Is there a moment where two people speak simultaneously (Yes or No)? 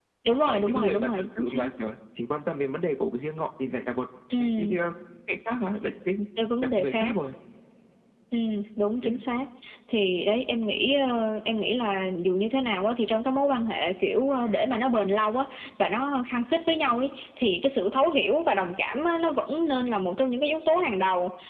Yes